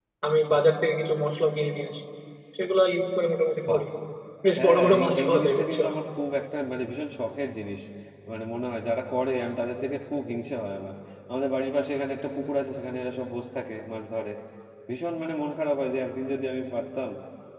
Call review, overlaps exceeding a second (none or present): present